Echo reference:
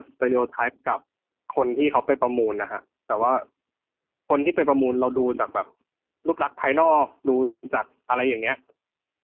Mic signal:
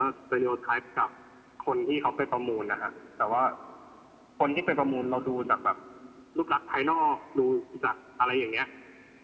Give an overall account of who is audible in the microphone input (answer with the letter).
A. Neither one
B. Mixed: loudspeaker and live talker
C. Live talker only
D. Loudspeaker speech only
D